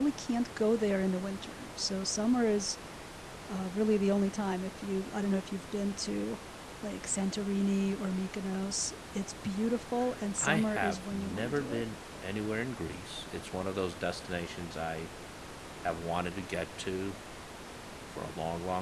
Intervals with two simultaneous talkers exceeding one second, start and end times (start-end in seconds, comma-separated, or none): 10.4-11.8